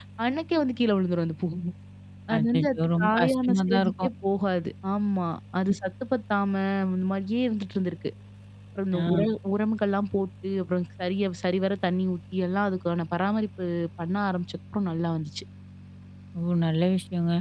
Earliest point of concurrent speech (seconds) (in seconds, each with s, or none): 2.4 s